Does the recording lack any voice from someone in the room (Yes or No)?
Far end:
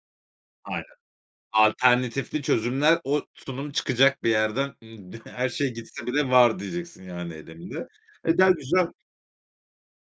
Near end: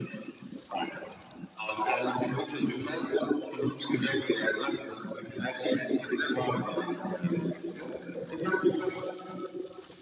Yes